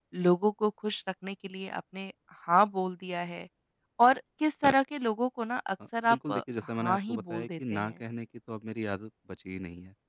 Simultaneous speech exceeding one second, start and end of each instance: 6.1-7.9

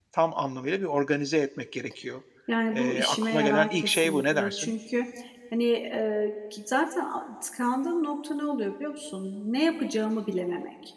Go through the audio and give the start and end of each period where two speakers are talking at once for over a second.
2.8-4.7

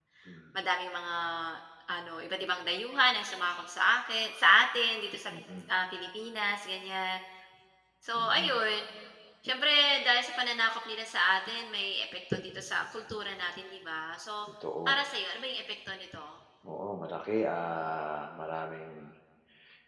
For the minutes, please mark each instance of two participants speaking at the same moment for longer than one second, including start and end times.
none

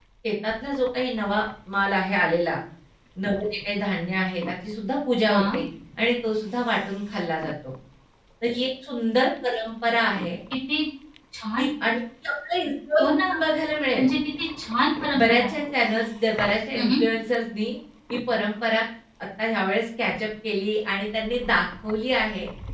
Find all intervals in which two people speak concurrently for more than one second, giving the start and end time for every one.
none

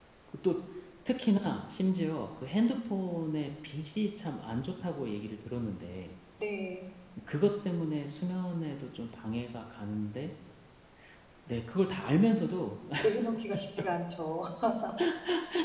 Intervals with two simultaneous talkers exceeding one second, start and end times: none

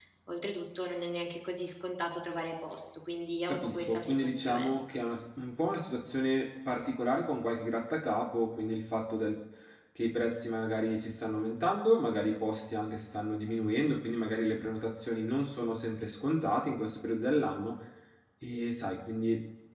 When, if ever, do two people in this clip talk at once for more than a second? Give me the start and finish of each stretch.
3.5-4.7

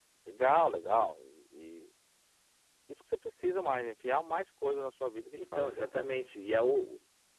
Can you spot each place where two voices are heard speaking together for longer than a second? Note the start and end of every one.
none

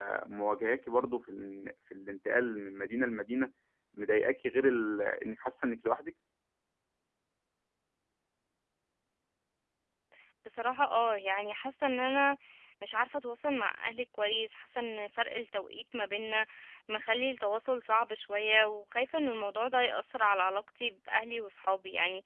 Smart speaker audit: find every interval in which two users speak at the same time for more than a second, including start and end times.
none

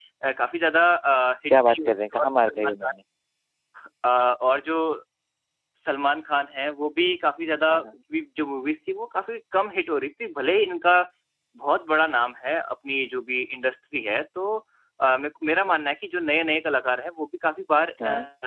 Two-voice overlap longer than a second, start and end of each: 1.5-2.9

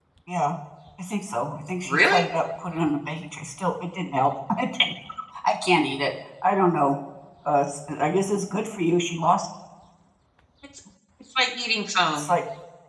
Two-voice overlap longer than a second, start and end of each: none

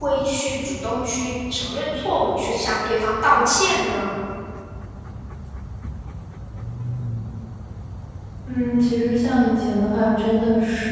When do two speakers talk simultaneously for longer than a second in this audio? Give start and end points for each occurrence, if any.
none

